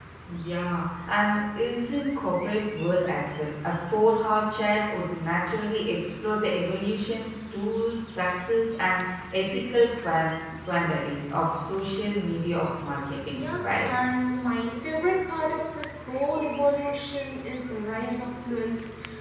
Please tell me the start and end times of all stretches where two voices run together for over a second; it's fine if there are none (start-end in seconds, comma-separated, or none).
none